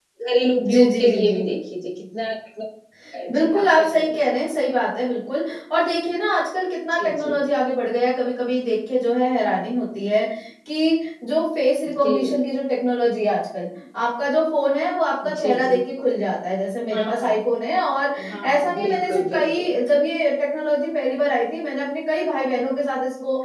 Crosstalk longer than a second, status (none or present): present